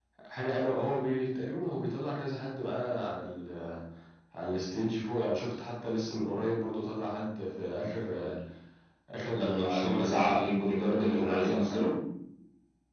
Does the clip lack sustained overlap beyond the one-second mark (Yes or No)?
No